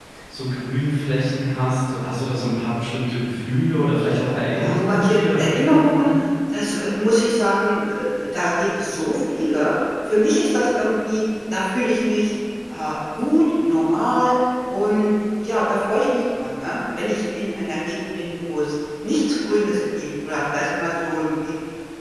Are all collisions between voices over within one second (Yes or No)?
No